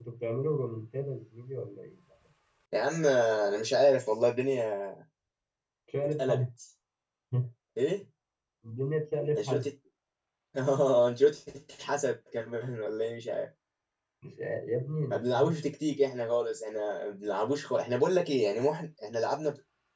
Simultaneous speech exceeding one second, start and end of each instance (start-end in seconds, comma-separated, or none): none